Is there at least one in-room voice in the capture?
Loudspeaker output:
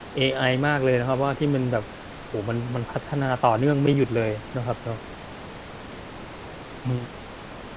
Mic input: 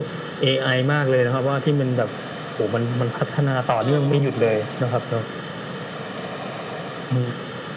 Yes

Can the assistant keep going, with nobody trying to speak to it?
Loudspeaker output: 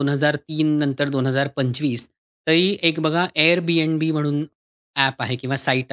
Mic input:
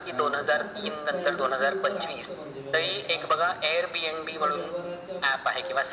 No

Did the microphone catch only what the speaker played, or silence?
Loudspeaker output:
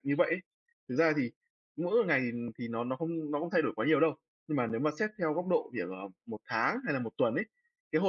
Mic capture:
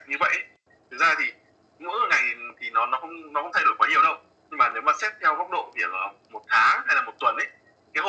Yes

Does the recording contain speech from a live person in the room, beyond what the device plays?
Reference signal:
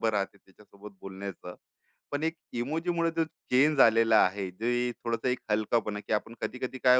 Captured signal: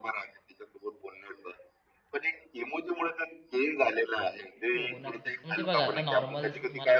Yes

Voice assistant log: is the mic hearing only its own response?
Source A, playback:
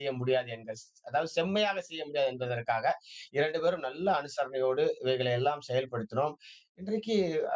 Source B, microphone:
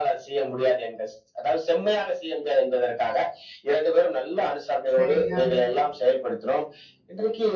No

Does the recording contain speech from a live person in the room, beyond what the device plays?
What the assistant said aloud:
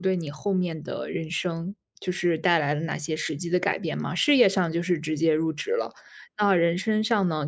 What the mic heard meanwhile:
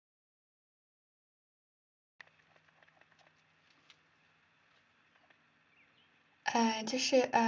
Yes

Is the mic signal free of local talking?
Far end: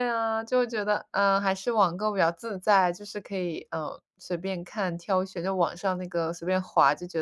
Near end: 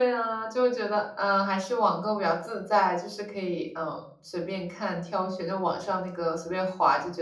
Yes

